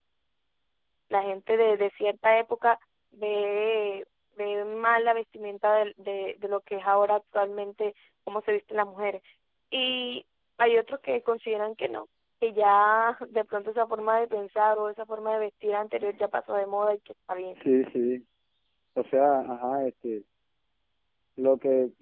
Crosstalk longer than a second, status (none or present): none